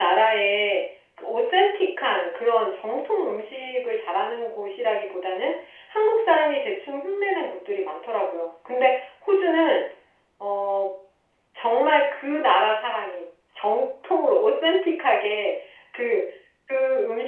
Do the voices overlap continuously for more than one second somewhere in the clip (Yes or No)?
No